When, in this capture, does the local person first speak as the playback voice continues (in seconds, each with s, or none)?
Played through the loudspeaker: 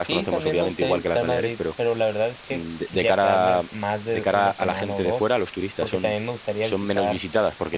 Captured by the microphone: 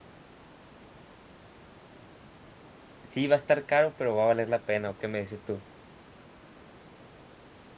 3.0 s